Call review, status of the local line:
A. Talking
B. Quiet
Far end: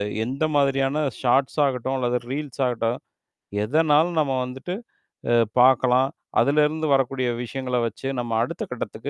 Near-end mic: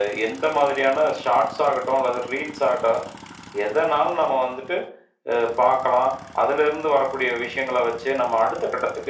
B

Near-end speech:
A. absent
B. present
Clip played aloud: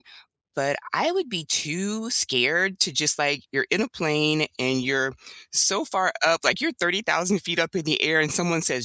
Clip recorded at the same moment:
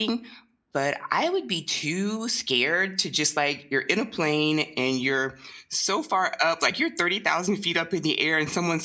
A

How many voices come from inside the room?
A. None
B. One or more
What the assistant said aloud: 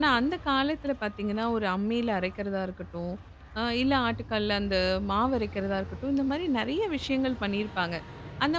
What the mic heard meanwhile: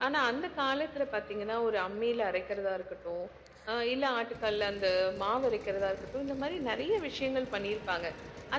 A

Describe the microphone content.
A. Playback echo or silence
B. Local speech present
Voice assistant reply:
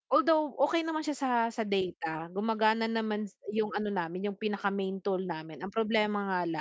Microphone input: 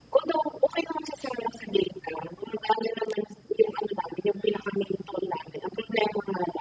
A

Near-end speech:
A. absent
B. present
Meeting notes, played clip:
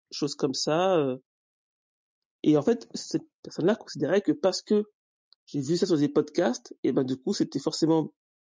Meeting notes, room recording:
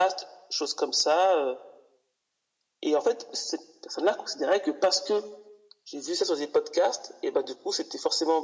A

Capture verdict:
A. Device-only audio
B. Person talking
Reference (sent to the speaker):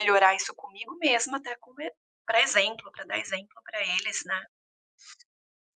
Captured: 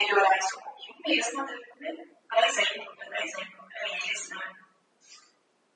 A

